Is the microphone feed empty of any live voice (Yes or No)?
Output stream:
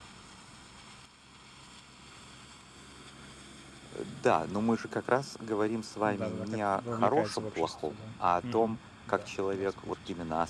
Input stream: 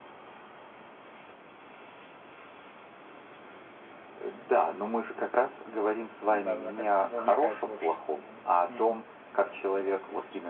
Yes